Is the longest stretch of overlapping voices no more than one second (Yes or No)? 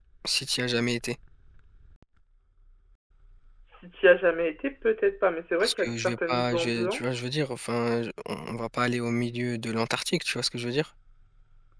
No